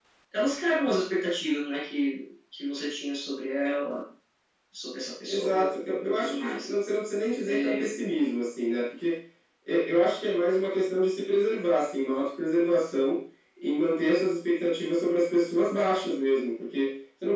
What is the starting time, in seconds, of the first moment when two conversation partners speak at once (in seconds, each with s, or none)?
5.3 s